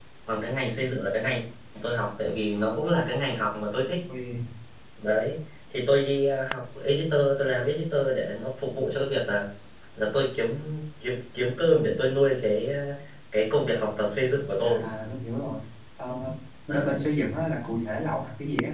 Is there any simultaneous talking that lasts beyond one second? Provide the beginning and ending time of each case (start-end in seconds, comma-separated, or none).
none